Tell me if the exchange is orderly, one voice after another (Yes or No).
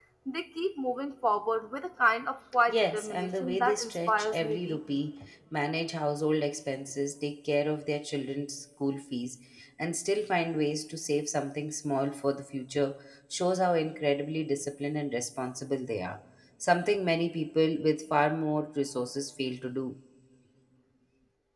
No